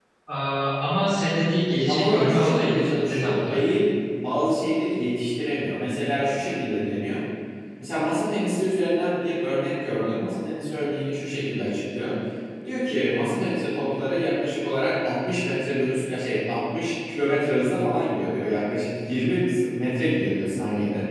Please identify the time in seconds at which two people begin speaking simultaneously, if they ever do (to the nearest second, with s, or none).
2 s